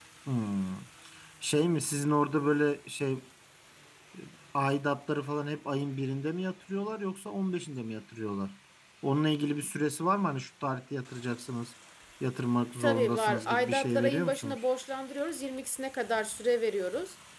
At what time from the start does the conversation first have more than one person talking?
12.8 s

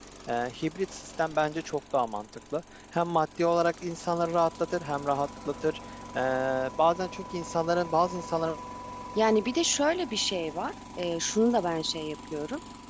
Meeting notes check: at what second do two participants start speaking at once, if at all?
none

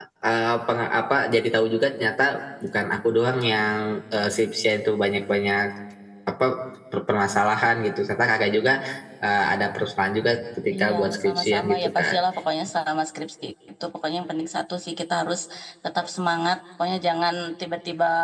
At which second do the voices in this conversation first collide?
10.7 s

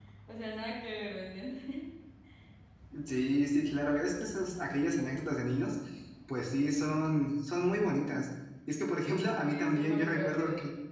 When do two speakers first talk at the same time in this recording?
9.4 s

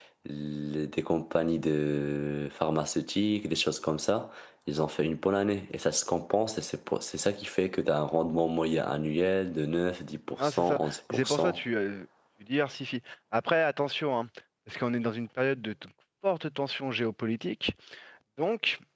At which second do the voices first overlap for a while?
10.4 s

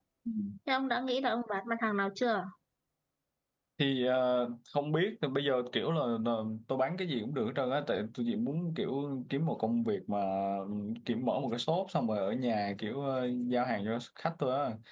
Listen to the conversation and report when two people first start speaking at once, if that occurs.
none

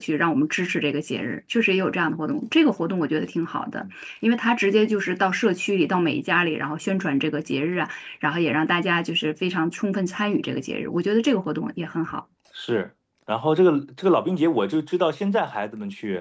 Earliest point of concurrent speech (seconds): none

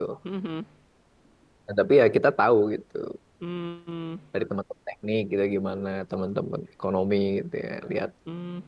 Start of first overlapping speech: none

